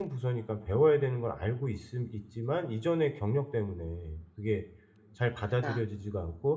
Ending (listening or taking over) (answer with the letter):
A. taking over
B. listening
B